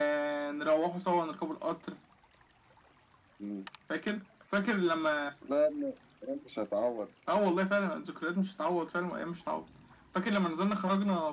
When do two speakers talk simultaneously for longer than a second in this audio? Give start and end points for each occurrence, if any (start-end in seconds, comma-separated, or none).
none